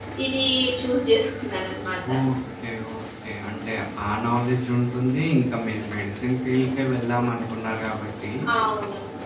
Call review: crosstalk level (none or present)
none